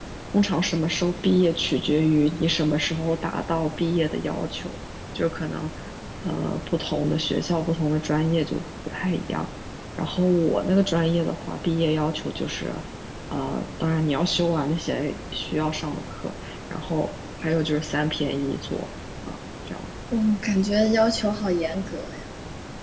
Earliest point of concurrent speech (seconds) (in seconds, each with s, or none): none